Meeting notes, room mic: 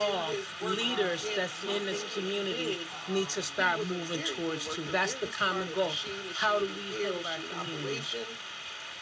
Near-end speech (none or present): present